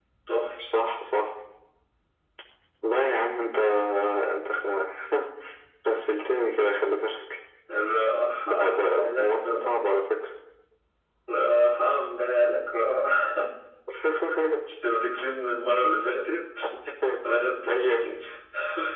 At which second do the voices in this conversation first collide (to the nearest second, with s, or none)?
8 s